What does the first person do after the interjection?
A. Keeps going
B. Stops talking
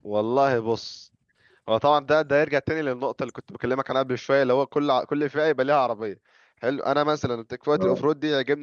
A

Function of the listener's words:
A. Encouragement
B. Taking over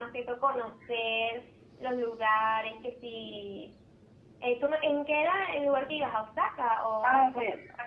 B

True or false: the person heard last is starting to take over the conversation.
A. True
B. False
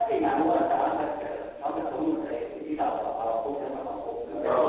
A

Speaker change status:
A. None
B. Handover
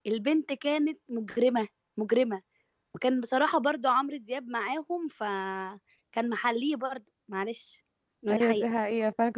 B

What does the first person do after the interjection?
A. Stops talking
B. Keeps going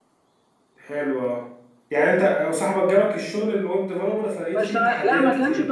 A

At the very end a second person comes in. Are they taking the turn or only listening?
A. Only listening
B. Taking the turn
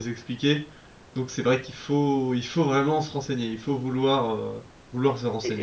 B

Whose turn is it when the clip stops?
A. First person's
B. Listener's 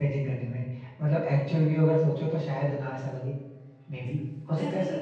B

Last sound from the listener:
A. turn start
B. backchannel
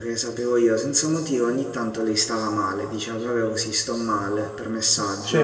B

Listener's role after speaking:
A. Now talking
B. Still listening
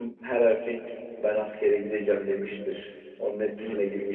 A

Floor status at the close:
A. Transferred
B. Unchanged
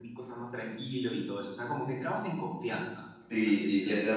A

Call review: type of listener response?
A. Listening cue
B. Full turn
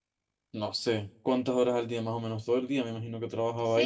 B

